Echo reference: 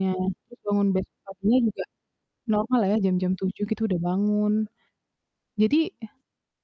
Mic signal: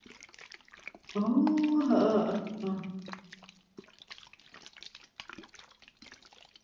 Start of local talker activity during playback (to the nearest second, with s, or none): 1 s